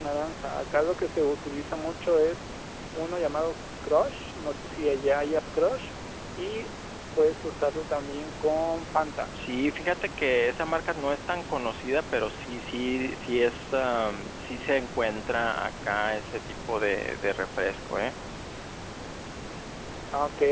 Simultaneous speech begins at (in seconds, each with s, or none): none